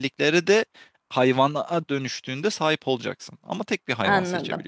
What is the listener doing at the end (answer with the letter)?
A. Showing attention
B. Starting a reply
B